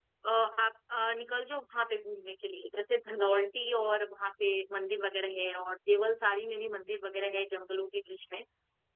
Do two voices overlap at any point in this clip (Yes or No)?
No